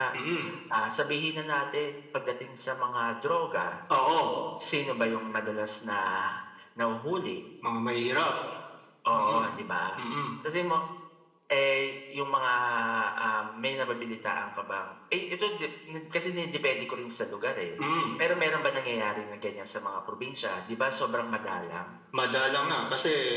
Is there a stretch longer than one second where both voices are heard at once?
No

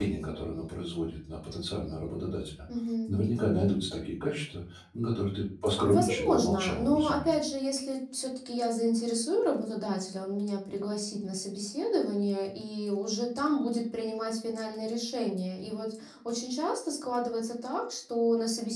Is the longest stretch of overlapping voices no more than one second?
No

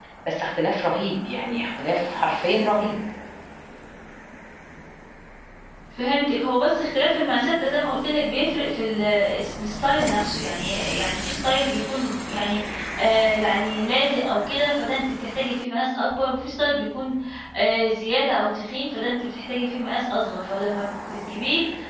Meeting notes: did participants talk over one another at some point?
No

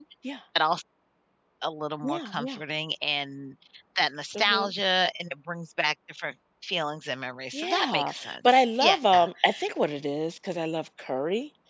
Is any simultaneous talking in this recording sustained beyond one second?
Yes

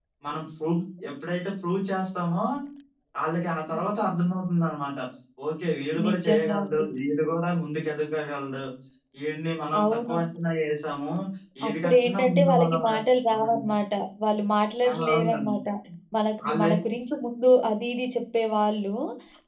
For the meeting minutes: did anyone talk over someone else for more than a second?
Yes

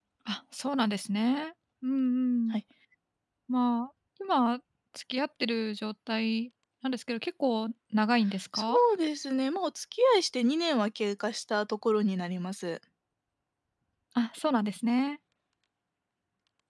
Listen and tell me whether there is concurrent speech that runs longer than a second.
No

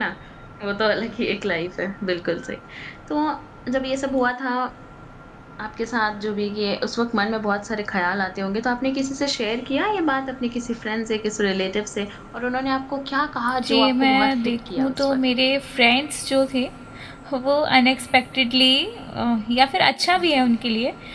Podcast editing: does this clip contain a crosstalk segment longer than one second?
Yes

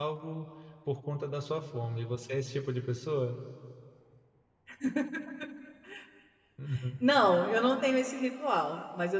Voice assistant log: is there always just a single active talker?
Yes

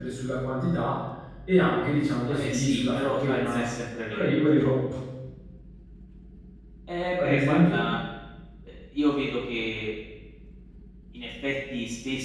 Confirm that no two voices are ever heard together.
No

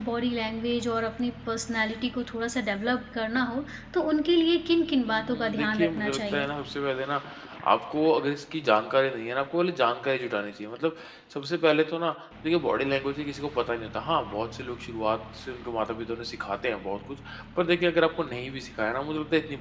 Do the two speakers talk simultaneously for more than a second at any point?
Yes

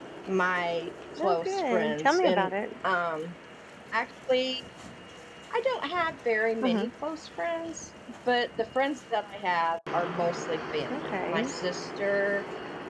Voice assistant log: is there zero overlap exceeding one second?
No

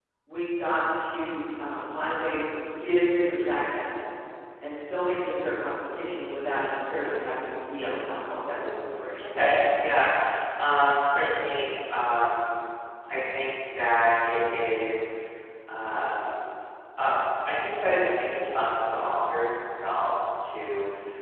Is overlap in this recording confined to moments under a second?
Yes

